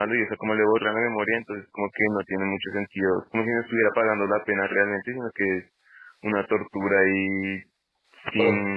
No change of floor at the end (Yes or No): Yes